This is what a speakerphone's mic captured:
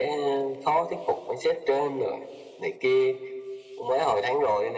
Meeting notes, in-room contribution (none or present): none